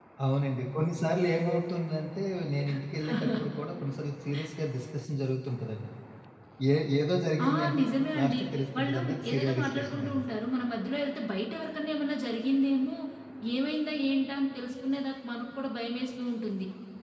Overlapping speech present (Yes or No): Yes